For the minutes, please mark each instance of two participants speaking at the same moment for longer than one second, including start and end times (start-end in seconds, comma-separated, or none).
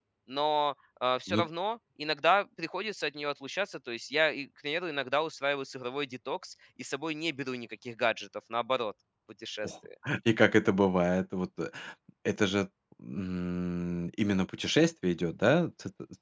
none